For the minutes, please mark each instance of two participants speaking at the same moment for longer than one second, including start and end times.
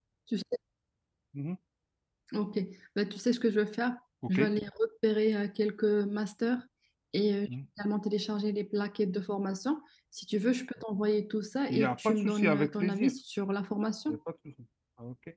11.7-13.1

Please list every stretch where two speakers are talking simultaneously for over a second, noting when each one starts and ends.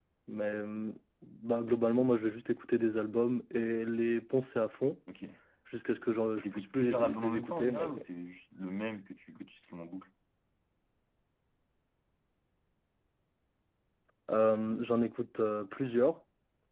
6.4-8.0

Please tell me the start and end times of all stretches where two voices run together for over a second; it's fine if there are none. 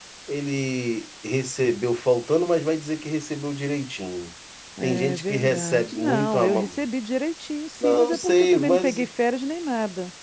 4.8-6.8, 7.8-9.0

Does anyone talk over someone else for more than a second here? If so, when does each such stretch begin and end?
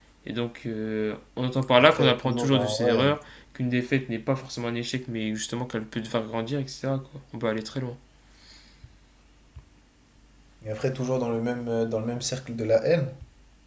1.8-3.1

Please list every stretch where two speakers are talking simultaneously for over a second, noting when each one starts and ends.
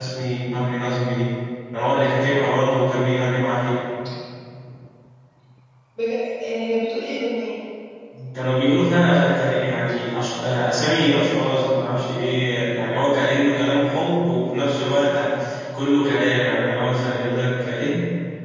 none

